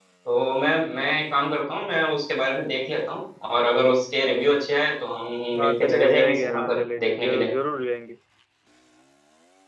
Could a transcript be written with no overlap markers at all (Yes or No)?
No